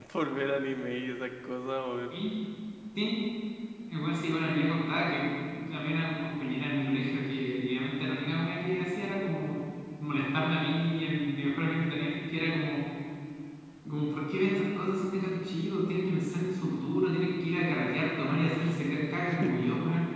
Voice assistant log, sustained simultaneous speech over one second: none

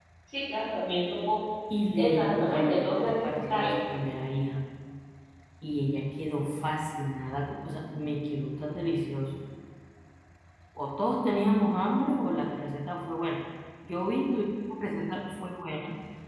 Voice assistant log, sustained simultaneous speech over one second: present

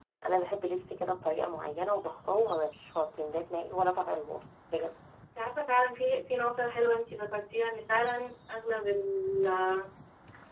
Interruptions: none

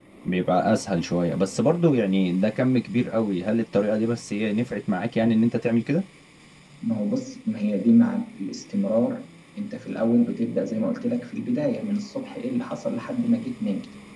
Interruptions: none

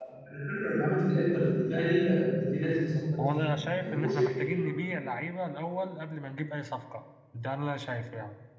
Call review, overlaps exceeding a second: present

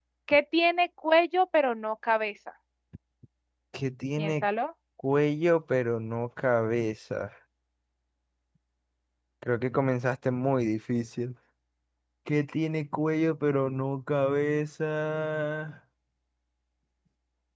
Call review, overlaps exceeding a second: none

